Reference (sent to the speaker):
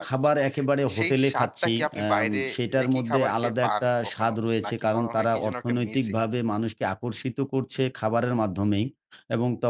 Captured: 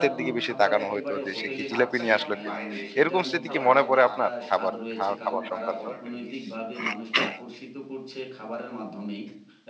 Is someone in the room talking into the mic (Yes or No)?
Yes